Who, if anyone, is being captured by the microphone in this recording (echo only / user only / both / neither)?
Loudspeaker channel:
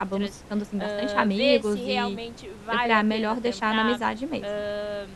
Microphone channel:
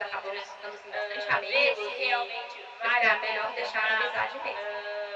echo only